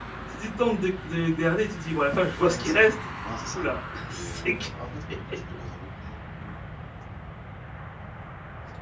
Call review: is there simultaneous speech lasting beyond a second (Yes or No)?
No